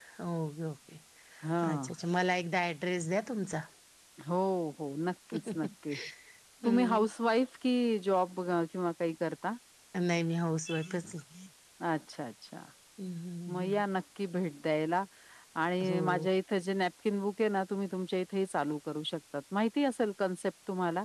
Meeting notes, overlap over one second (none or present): none